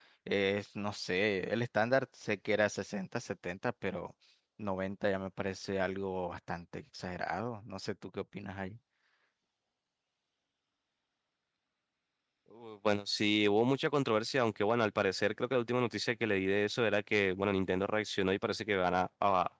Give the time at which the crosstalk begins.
none

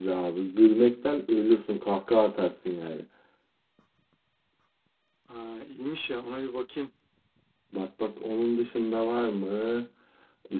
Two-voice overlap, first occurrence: none

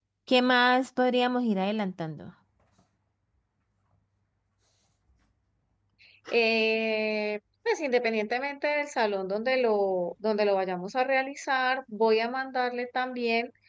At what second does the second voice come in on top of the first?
none

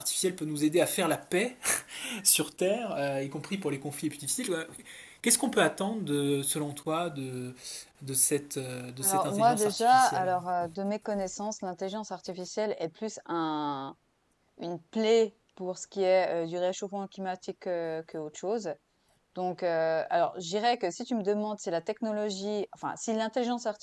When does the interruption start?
9.0 s

